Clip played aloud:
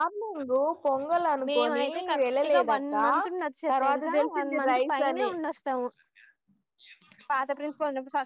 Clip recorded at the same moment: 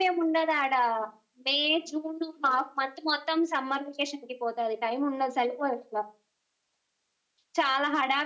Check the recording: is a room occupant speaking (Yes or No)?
Yes